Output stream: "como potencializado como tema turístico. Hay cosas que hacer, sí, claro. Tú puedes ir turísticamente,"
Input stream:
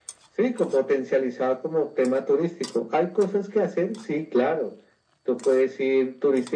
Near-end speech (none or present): none